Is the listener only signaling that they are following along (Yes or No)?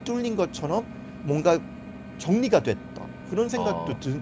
Yes